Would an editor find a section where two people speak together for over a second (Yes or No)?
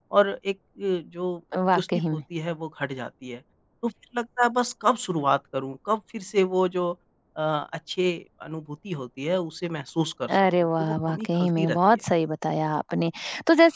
Yes